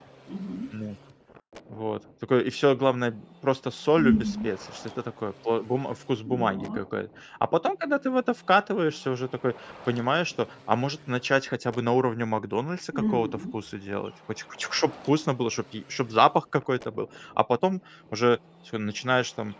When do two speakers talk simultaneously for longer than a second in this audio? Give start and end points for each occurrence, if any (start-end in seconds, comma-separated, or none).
none